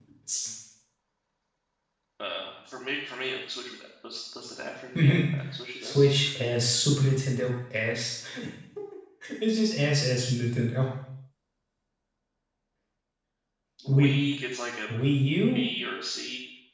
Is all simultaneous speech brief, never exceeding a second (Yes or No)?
Yes